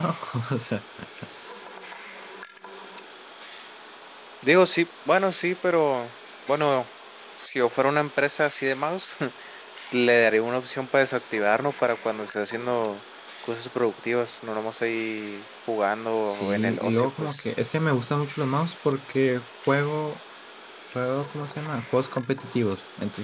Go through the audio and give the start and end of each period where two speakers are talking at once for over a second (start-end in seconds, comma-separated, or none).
16.2-17.4